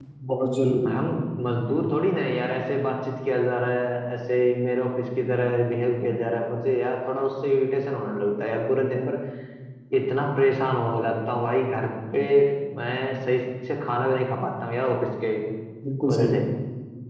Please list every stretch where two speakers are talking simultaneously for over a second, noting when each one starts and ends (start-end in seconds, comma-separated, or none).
none